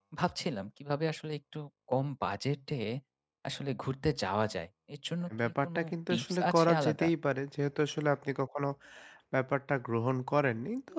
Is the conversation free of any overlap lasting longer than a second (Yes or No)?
No